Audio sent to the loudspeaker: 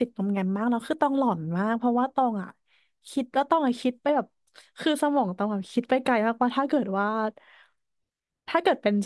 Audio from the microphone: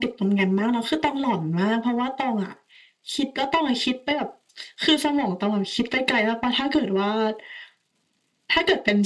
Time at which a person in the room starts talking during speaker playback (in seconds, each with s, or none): none